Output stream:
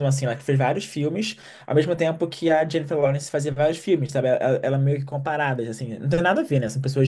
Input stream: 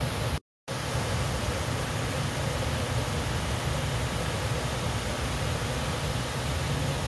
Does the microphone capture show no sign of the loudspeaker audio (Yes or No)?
Yes